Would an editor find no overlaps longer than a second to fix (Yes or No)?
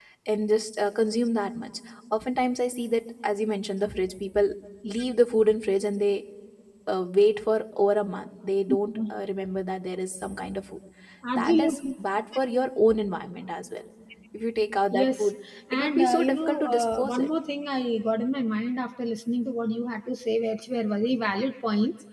No